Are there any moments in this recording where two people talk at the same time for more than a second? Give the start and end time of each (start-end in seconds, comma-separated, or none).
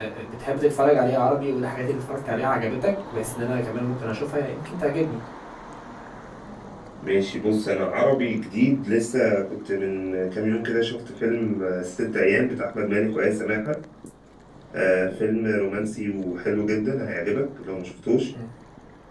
none